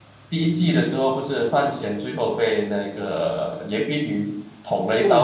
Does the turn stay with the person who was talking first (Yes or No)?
No